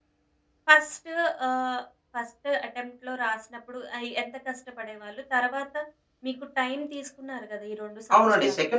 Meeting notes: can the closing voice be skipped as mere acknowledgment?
No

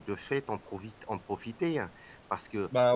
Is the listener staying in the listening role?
Yes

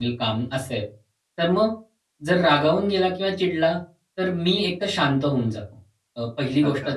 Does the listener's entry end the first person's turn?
No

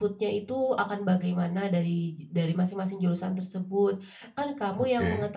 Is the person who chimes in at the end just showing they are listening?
Yes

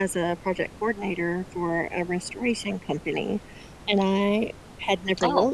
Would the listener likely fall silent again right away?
Yes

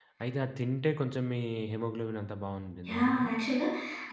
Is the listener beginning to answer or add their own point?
Yes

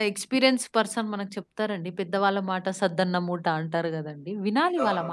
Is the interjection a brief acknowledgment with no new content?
No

